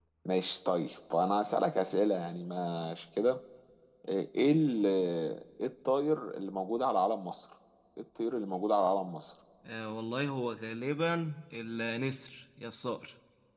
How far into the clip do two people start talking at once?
none

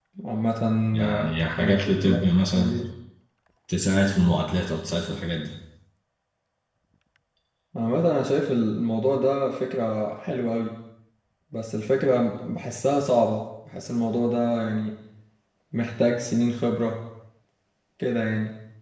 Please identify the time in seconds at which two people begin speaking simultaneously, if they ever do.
1.0 s

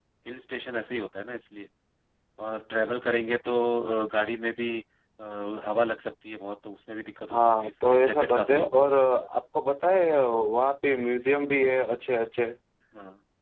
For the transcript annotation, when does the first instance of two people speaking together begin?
7.3 s

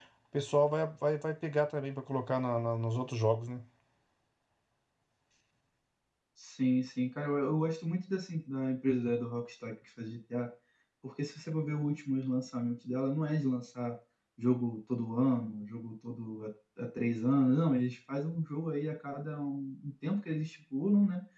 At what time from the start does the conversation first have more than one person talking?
none

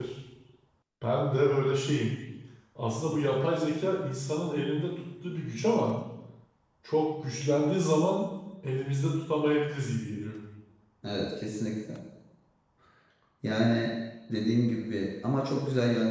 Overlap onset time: none

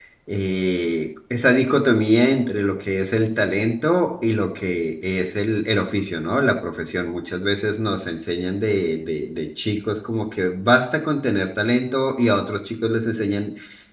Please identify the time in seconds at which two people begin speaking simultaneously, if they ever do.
none

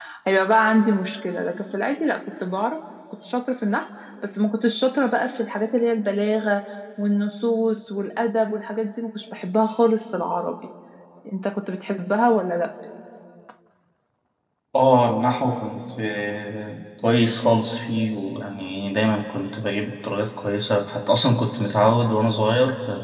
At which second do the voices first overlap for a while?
none

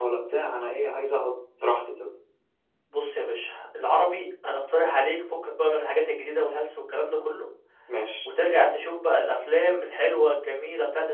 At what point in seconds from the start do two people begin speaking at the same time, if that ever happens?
none

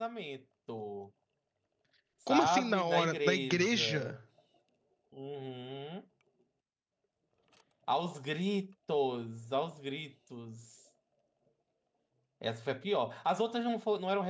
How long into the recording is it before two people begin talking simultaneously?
2.3 s

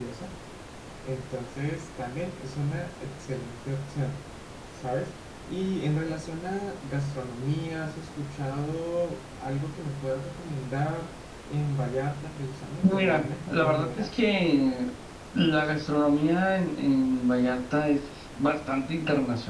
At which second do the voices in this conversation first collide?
12.8 s

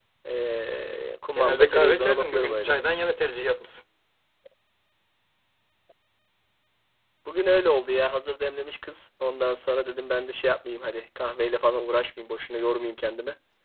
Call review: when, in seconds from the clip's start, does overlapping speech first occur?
1.3 s

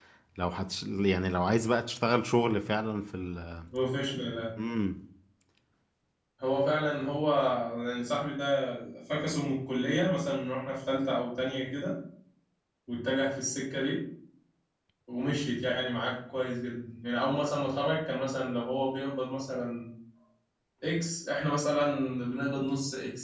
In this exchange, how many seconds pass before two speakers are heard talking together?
none

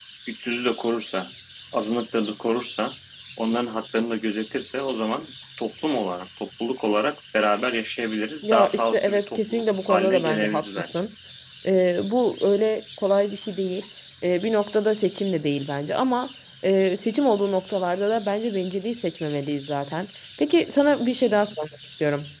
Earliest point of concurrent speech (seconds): 8.4 s

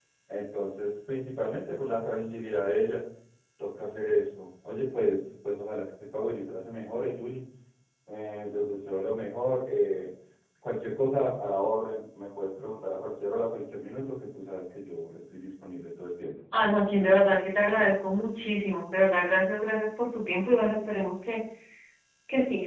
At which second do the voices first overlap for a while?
none

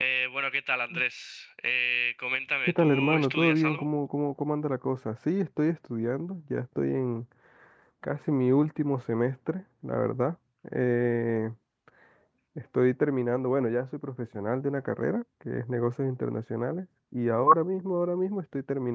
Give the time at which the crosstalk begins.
2.6 s

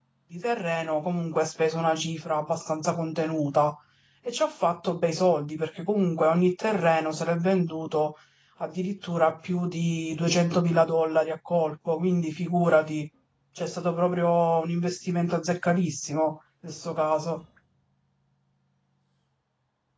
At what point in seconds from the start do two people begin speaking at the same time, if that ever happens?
none

